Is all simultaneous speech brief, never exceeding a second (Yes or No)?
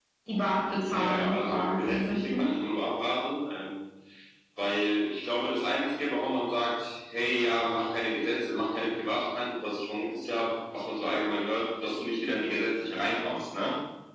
No